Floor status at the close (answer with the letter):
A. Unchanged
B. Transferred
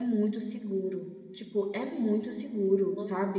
A